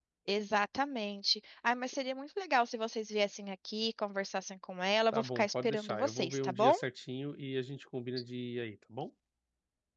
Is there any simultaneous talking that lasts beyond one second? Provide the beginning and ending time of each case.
5.1-6.8

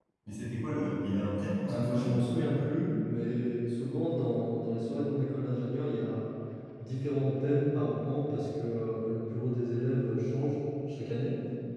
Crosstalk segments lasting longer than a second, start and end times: none

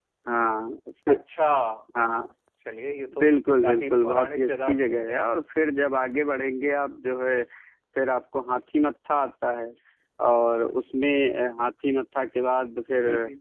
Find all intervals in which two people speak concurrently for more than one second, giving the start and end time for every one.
3.6-5.3

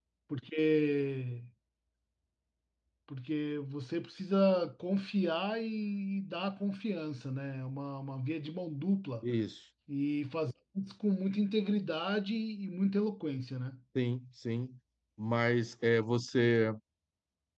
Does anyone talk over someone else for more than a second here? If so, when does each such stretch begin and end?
none

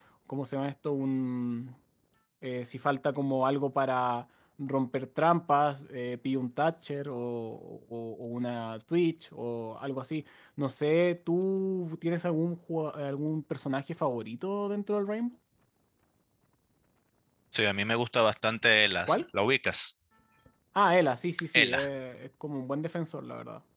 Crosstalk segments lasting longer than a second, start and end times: none

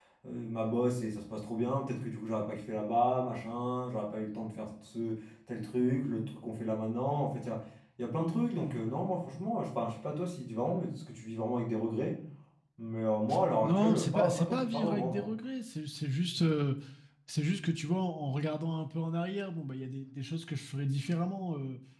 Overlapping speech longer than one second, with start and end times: 13.6-15.3

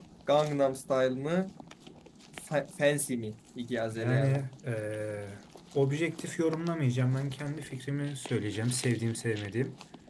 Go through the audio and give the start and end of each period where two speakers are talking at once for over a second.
none

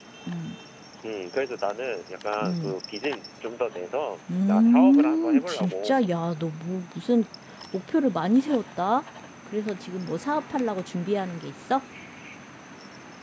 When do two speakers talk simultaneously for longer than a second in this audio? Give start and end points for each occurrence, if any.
4.5-6.0

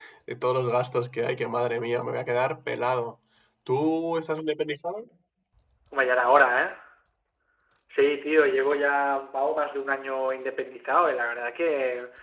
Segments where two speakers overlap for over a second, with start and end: none

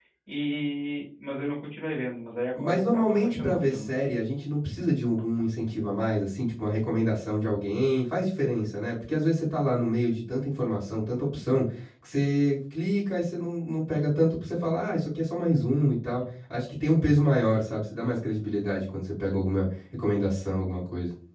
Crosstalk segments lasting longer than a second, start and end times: 2.6-3.9

